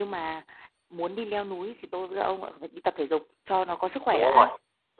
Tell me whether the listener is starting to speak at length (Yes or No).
Yes